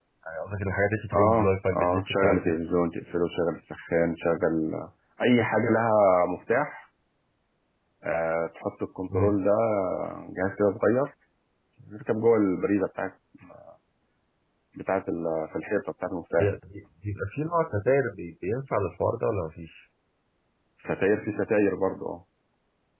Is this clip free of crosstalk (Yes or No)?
No